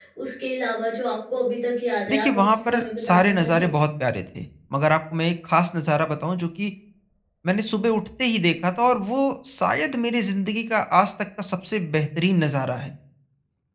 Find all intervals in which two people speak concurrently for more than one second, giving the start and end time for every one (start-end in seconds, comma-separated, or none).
2.1-3.6